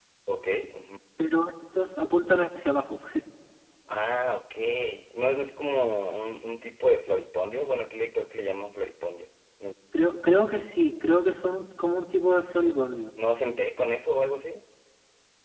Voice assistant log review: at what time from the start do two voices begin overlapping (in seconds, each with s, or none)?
none